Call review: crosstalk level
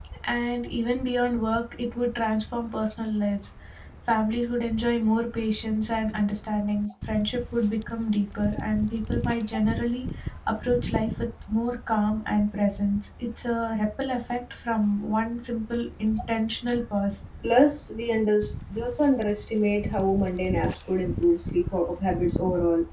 none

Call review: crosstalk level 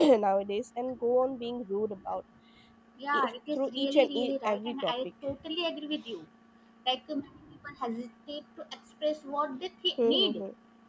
present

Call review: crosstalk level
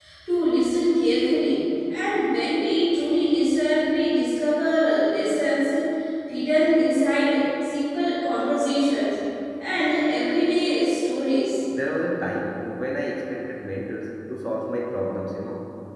none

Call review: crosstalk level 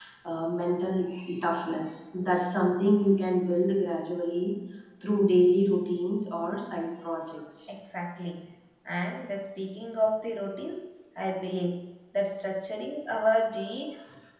none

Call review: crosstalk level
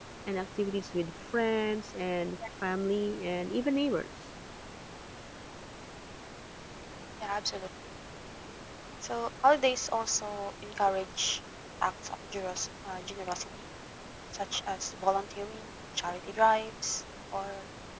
none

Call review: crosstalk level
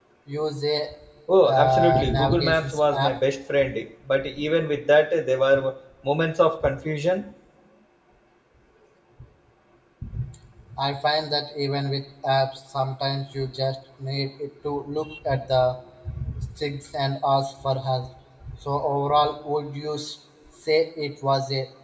present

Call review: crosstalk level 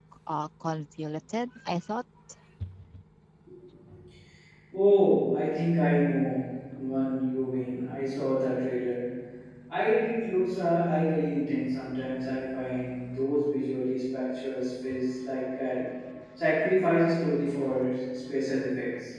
none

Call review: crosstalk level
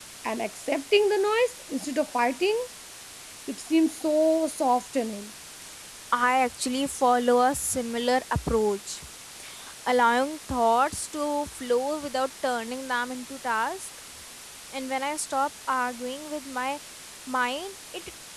none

